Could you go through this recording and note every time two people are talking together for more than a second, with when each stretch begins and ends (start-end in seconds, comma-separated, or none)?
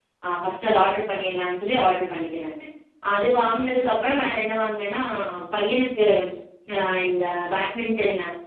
none